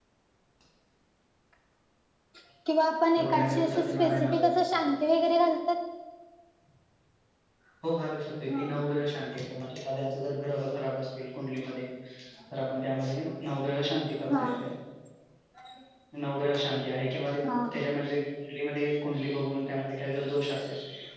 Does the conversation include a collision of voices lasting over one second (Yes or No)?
Yes